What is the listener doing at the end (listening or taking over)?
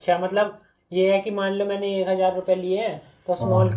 listening